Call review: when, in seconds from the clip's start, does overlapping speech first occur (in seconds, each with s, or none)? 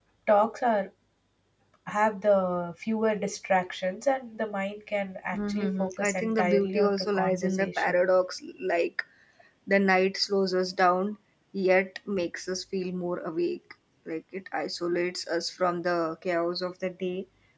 5.3 s